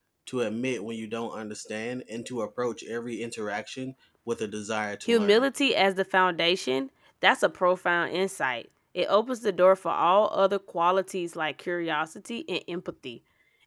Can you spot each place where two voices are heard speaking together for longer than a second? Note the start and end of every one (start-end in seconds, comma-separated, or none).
none